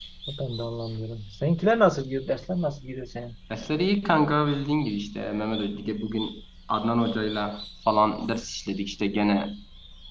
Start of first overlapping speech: none

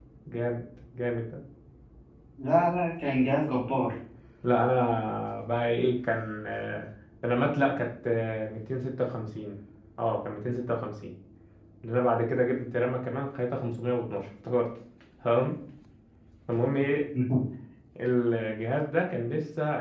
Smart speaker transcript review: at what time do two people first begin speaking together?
none

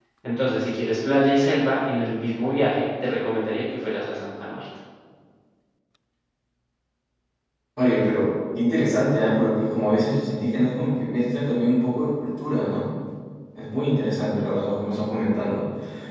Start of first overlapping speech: none

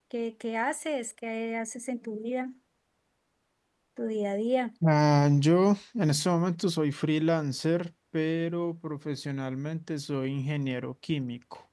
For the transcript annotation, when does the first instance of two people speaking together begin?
none

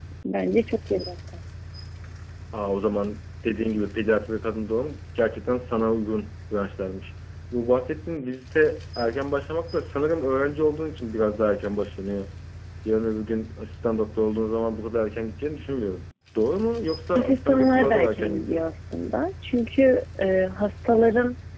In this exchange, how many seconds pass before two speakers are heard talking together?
17.1 s

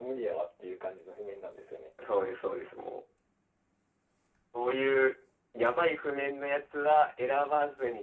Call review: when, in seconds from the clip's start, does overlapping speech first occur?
none

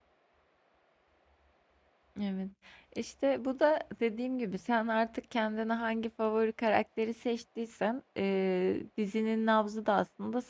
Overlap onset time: none

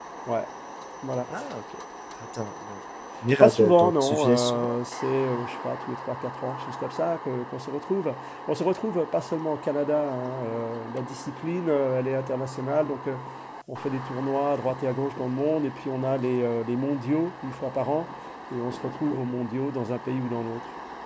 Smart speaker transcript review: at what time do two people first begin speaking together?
3.4 s

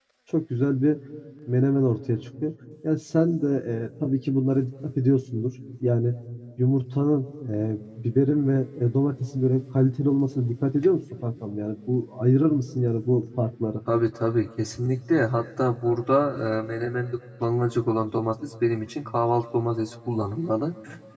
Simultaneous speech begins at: none

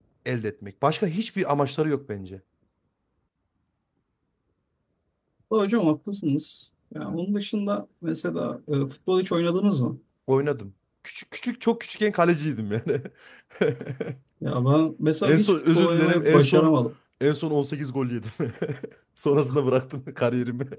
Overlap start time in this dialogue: 15.2 s

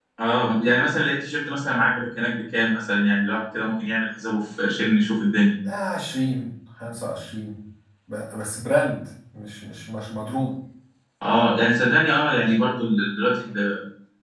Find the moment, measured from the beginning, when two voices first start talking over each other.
none

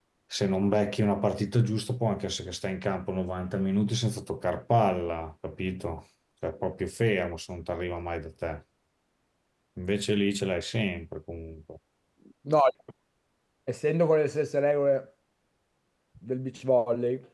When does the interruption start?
none

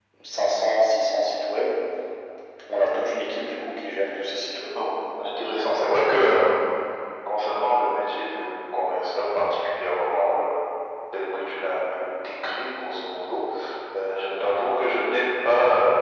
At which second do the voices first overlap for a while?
none

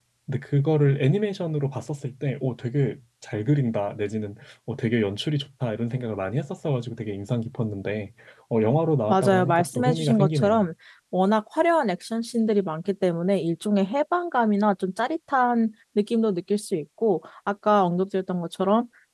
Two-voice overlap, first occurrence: 9.1 s

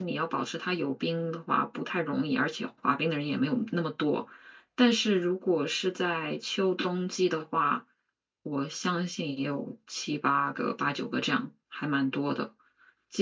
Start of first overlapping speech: none

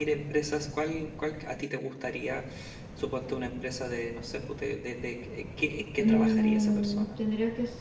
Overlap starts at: 5.9 s

